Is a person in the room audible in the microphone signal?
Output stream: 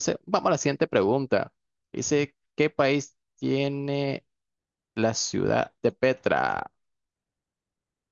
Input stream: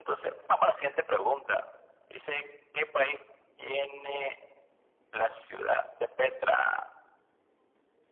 No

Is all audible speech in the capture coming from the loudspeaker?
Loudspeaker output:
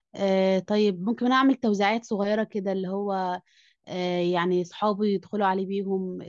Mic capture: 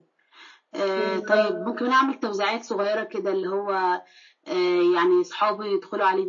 No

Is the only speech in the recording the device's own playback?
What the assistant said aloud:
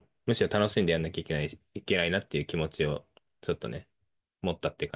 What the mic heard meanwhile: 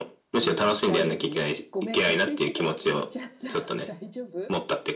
No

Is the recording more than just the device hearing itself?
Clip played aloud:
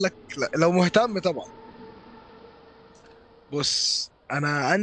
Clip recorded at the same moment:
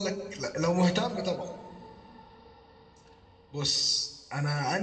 No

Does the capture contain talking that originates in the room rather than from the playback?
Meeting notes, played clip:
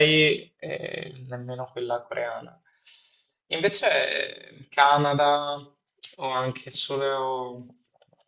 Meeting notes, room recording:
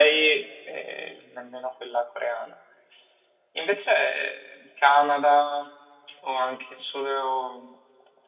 No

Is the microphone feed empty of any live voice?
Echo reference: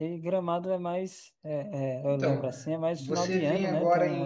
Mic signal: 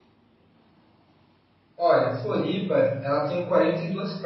No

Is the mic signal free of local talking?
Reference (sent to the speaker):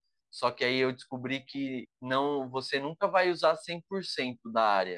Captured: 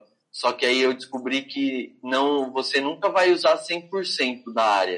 Yes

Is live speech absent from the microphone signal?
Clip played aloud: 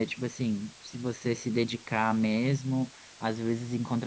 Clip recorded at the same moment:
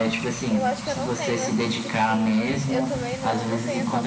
No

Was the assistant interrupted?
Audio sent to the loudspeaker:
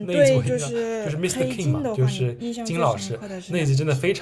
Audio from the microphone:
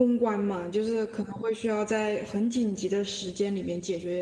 Yes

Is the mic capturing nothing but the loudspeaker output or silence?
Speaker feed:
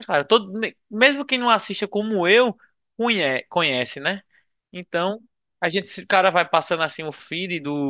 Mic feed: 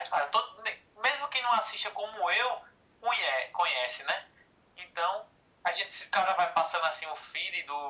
Yes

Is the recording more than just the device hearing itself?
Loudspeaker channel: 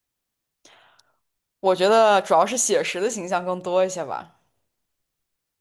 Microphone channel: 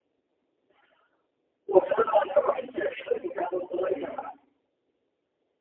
Yes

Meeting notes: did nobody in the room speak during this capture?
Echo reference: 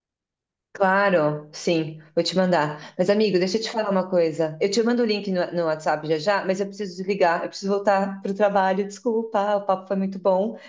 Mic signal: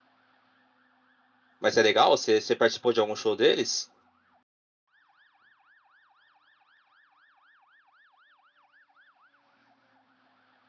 No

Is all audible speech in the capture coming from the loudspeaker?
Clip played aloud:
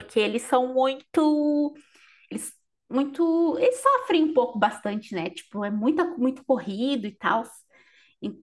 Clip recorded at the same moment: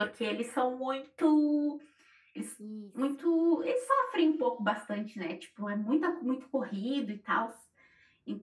No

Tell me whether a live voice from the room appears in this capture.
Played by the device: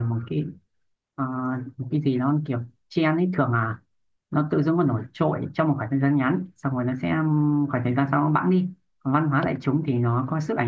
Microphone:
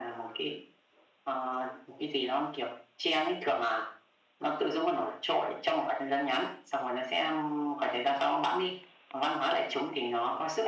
No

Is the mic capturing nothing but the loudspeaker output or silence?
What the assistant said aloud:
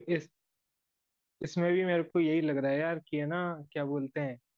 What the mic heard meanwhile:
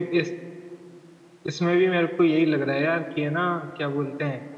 Yes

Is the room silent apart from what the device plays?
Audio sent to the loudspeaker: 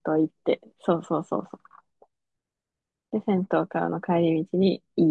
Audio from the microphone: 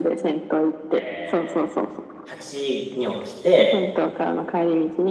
No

